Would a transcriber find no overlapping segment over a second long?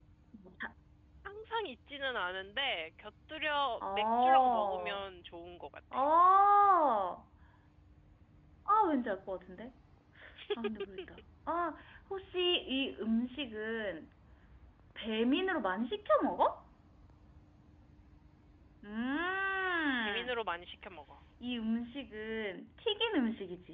No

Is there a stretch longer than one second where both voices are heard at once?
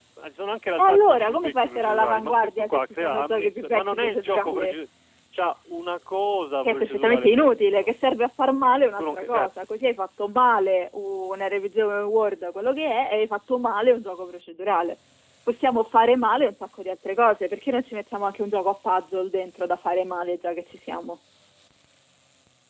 Yes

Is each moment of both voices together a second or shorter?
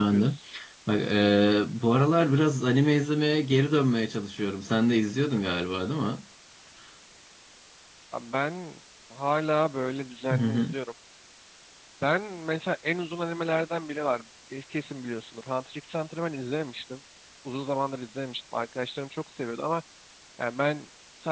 Yes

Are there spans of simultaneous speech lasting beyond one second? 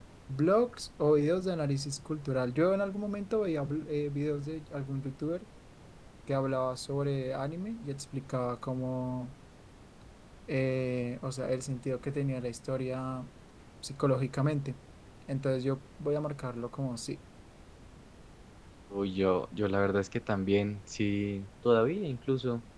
No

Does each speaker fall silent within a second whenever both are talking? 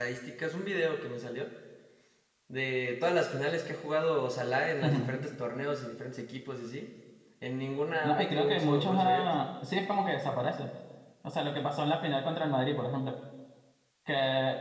No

